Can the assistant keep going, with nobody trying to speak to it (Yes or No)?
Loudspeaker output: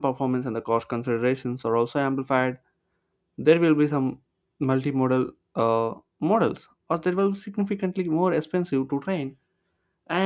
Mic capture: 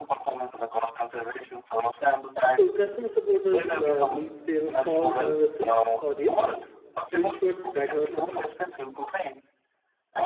No